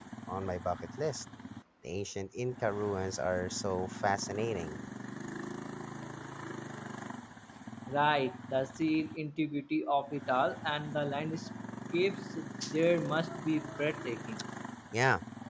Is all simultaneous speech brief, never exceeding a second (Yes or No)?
Yes